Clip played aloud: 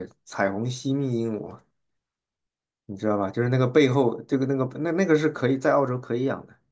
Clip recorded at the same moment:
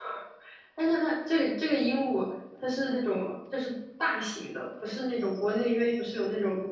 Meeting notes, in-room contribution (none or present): present